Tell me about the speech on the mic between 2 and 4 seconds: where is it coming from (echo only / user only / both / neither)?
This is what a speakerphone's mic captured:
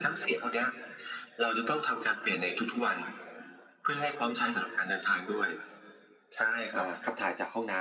echo only